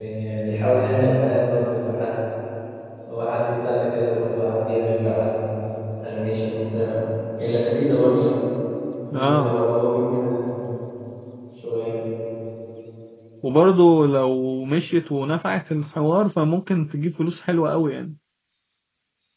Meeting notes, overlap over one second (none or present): none